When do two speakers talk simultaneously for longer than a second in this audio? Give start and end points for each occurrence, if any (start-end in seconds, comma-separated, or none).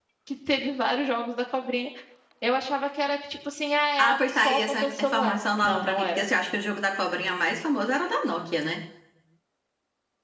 4.0-6.2